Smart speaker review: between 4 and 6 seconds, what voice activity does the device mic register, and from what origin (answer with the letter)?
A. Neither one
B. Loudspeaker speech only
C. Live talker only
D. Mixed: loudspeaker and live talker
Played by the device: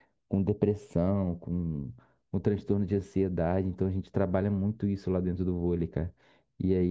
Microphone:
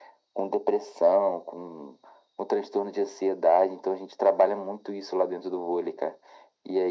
B